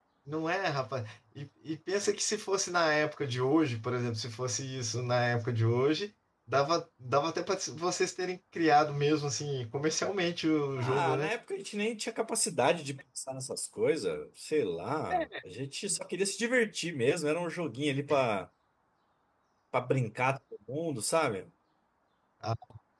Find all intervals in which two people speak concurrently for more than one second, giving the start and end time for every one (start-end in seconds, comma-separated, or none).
none